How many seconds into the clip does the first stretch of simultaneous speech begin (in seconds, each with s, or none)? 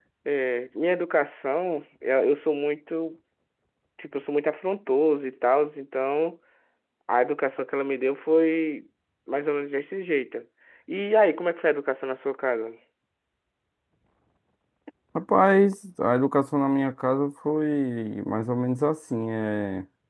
none